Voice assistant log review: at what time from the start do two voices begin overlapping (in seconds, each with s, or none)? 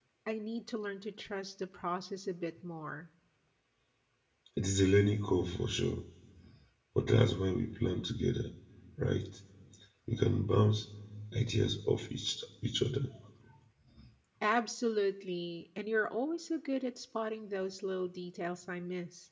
none